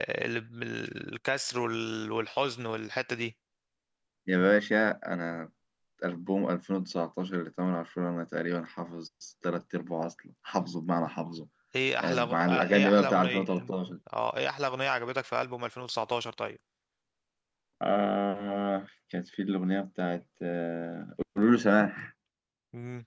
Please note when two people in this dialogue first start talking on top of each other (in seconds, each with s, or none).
12.0 s